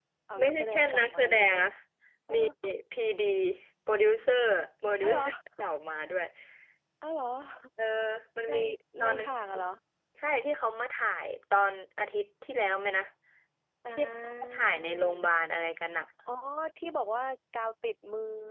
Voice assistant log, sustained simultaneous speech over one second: present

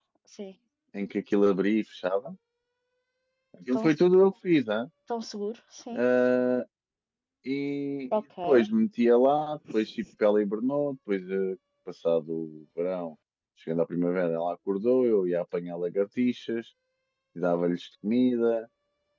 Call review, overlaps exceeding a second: none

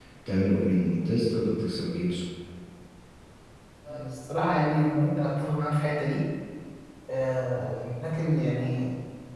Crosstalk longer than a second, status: none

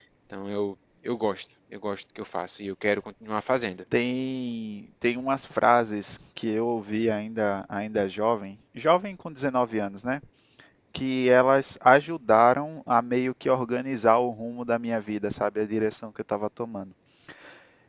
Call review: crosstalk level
none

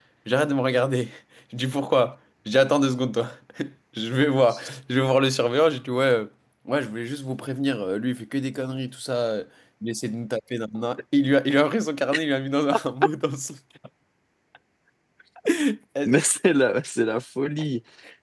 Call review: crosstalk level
none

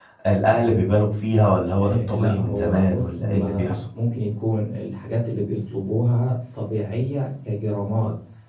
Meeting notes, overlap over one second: present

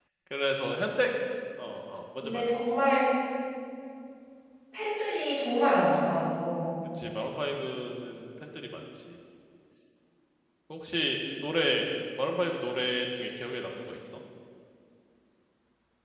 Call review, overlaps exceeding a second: none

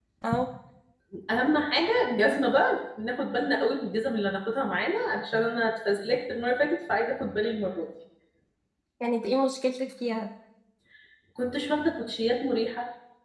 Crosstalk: none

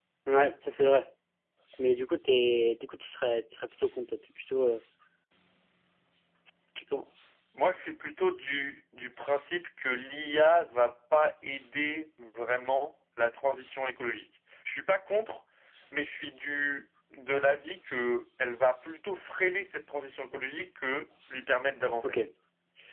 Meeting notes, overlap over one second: none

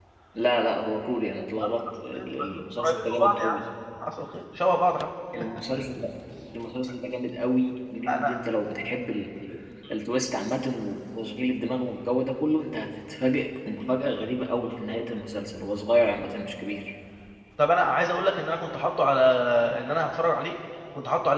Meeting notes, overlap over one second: present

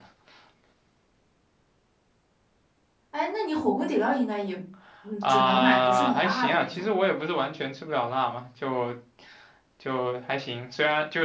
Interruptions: present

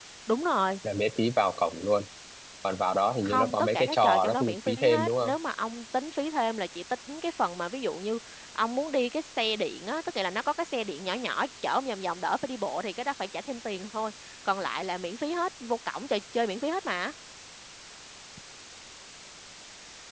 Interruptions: present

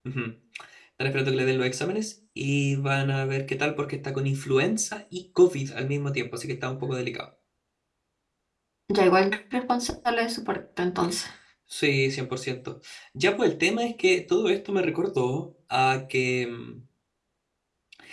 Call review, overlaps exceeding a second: none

